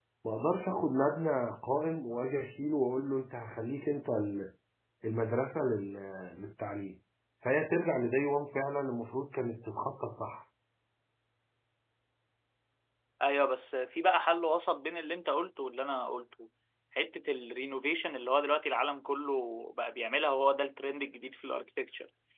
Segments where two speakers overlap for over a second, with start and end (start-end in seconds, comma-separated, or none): none